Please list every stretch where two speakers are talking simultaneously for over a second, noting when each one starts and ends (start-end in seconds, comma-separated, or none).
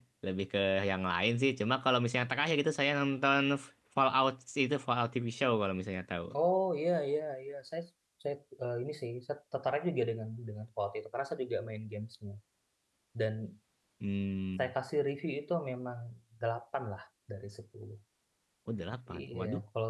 none